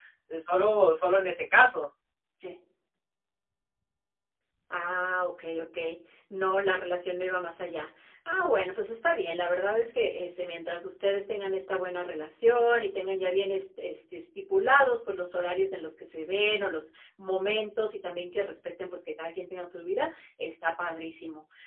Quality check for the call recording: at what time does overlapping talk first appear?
none

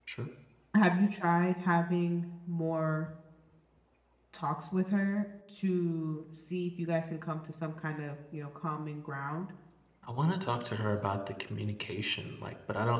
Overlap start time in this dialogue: none

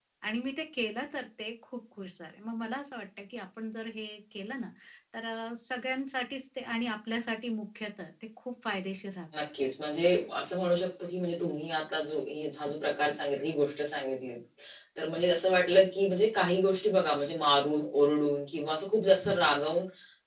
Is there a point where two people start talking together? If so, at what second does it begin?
none

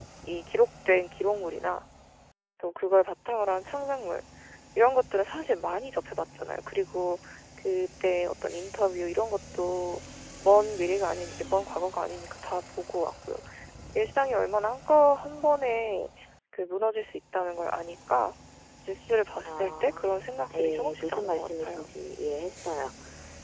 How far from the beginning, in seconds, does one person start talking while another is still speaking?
19 s

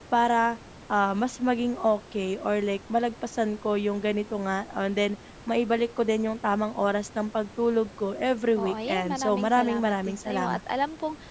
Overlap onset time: 9 s

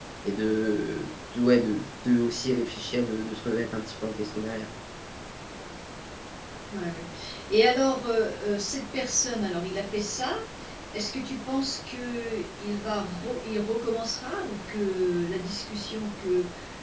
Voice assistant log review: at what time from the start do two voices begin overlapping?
none

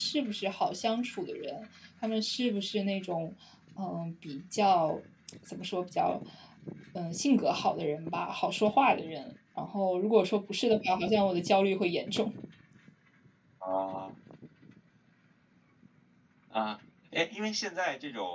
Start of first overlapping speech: none

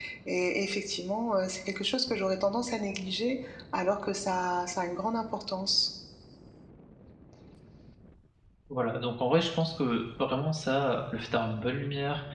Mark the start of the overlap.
none

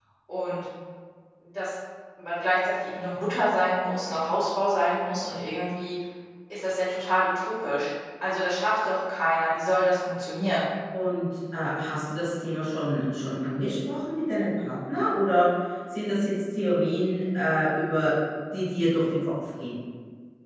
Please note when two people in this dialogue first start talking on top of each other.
none

